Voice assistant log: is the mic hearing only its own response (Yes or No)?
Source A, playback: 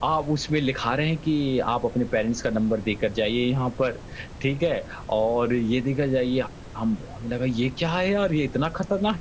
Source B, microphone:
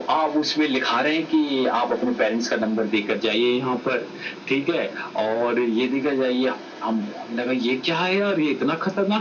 Yes